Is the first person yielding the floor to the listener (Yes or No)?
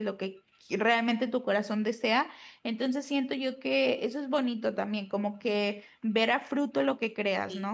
Yes